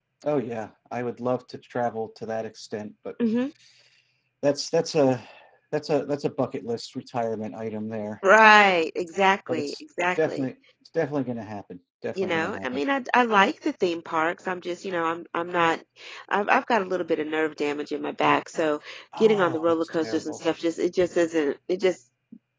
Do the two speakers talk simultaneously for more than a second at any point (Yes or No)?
Yes